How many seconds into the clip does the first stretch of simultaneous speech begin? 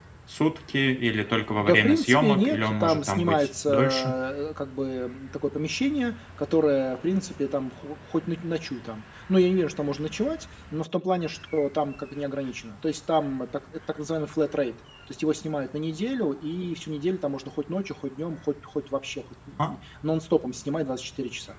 2 s

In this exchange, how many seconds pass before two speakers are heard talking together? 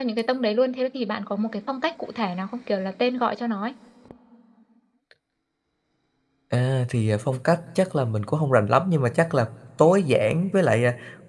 none

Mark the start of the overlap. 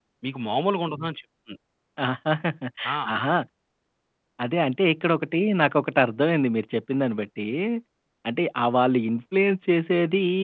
none

